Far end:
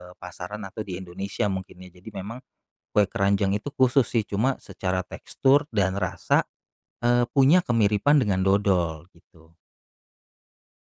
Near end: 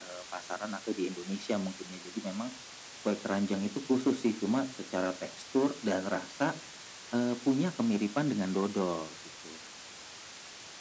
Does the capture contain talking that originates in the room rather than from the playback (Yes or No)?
No